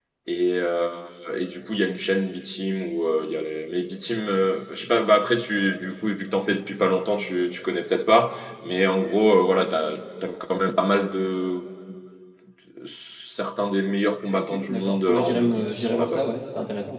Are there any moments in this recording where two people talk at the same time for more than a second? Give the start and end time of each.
14.3-16.4

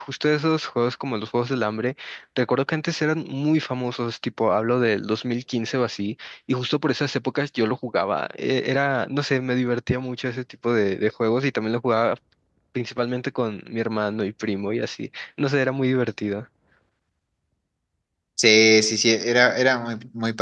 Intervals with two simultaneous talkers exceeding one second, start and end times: none

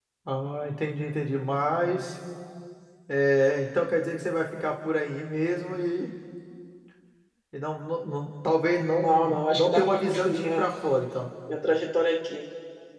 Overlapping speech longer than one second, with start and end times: 9.0-10.6

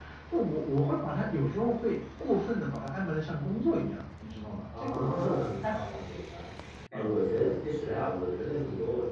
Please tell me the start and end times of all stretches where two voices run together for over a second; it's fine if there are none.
4.8-6.0

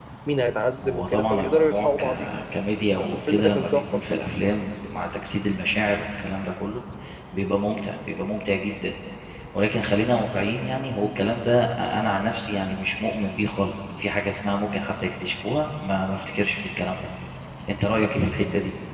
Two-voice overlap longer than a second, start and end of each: 0.8-2.1, 3.0-4.2

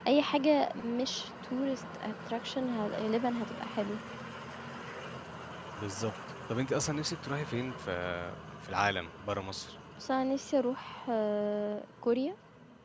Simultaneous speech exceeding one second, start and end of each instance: none

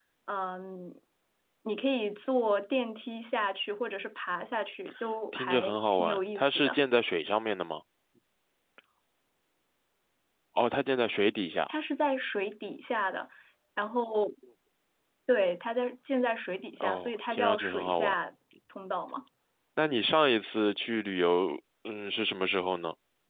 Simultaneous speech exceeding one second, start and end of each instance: 5.3-6.8, 16.8-18.1

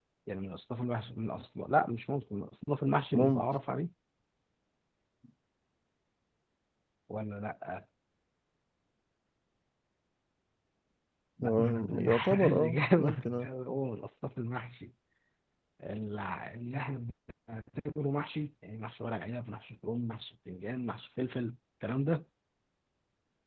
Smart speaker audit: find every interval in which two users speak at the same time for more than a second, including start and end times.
11.4-13.5

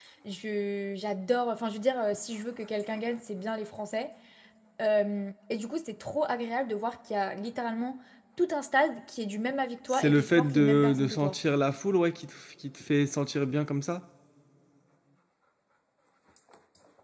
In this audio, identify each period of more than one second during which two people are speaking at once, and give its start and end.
9.9-11.3

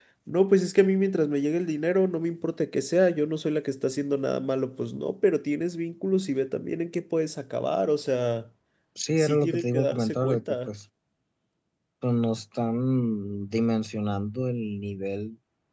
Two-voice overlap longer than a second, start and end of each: 9.2-10.7

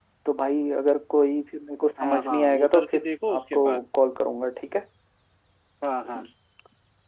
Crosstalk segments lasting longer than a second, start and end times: 2.0-3.8

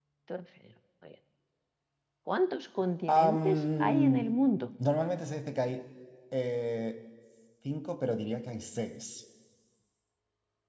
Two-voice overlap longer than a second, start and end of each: 3.1-4.3

